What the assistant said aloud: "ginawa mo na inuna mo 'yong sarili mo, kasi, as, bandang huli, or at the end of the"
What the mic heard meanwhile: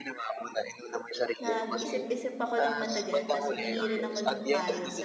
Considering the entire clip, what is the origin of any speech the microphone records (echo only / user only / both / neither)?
both